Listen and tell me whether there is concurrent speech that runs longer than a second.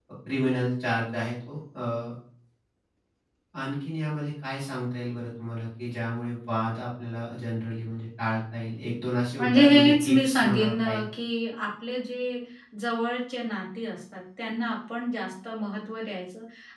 Yes, from 9.4 s

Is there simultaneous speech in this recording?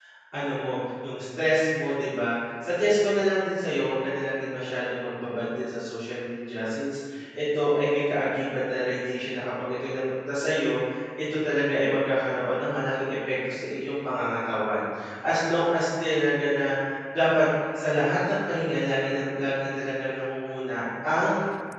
No

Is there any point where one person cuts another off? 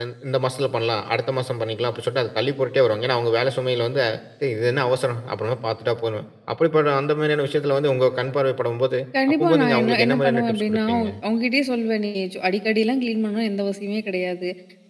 Yes, from 9.1 s

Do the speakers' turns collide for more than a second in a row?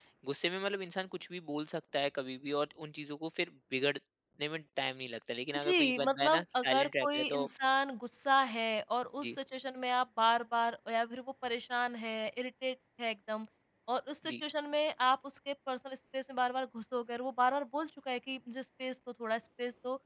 Yes, from 5.5 s

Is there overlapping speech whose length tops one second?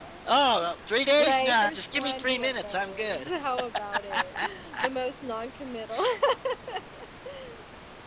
Yes, from 1.2 s

